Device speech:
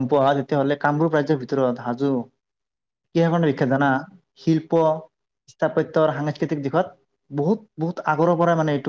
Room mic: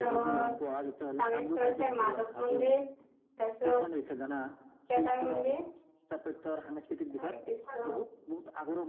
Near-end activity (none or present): present